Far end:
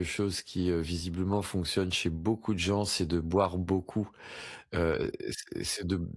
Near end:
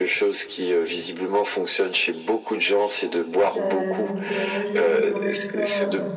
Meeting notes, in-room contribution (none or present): present